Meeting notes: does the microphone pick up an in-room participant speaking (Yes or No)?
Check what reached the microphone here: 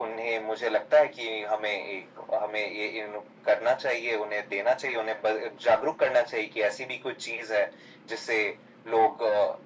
No